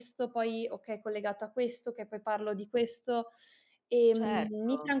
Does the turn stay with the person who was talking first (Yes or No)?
No